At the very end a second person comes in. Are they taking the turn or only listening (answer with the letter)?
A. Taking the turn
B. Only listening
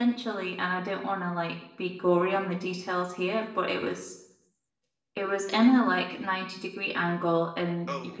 B